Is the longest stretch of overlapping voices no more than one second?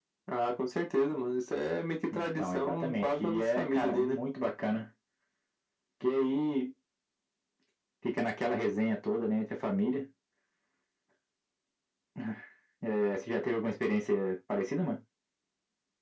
No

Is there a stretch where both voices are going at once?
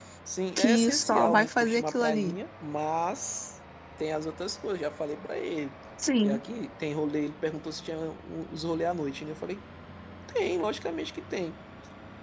Yes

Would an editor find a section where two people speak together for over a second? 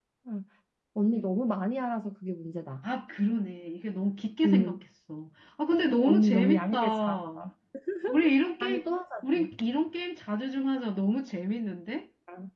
Yes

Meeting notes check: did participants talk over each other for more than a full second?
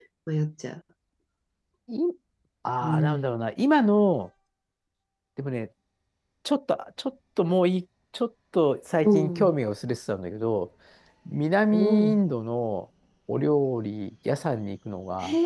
No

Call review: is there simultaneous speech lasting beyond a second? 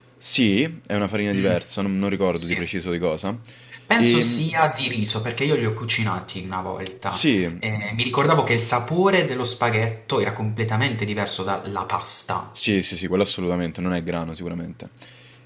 No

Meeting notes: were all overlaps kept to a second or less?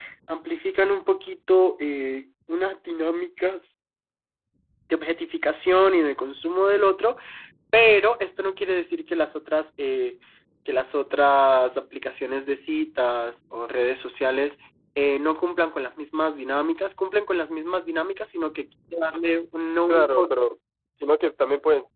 Yes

